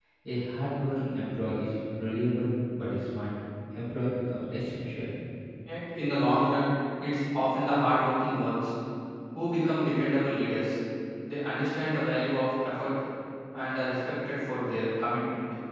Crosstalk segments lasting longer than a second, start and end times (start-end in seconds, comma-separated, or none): none